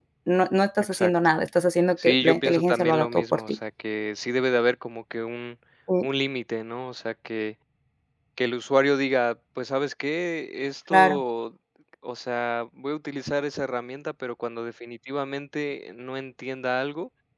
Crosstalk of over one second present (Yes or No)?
Yes